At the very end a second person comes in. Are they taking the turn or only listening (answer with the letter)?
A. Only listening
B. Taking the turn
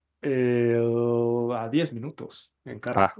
A